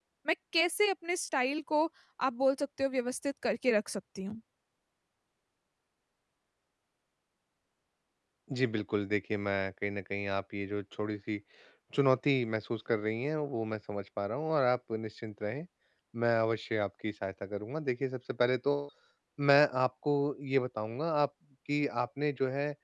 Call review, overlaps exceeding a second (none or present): none